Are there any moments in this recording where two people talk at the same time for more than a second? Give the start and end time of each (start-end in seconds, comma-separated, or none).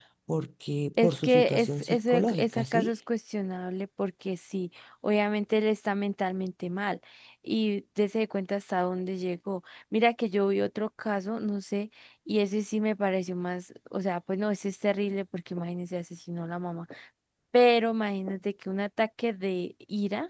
1.0-2.9